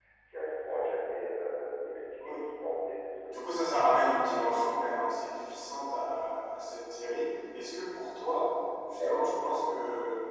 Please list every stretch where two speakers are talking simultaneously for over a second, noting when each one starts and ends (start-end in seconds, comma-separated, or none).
3.3-4.5